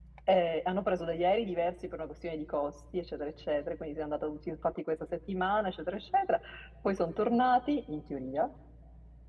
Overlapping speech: No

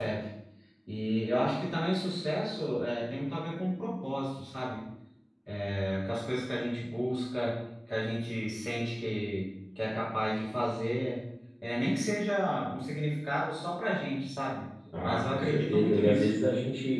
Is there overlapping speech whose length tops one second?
Yes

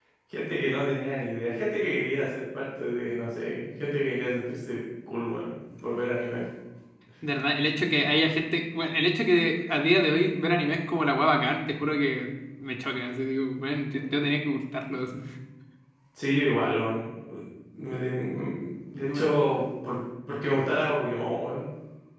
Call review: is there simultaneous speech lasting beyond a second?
No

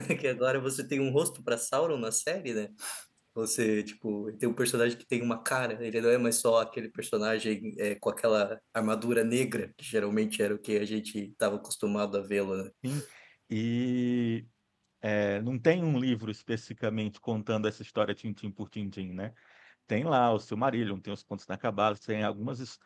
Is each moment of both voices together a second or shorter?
Yes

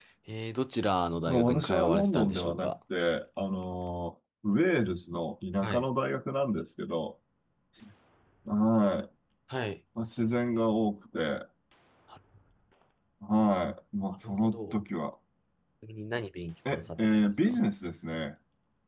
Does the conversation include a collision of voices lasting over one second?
Yes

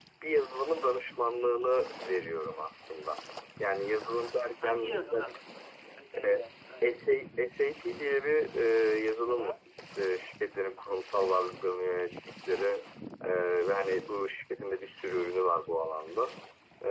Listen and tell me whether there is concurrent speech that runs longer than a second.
Yes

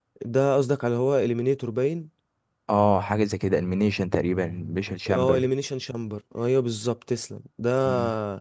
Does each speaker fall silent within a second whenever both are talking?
Yes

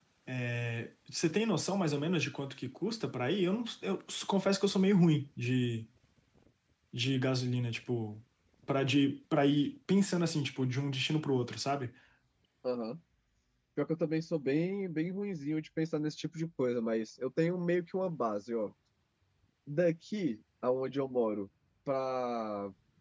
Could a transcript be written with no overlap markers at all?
Yes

